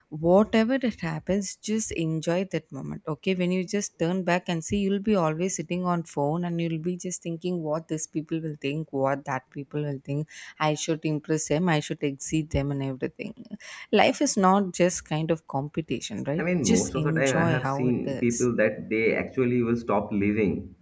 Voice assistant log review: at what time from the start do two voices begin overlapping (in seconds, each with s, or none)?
16.4 s